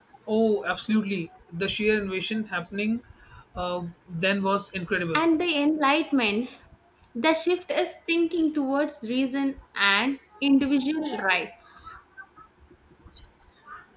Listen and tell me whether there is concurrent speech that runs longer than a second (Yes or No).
No